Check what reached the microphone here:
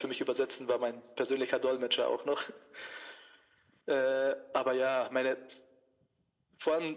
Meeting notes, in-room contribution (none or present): none